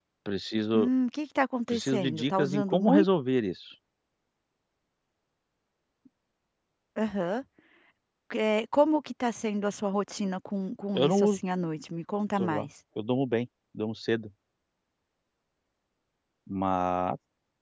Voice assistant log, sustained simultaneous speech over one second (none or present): present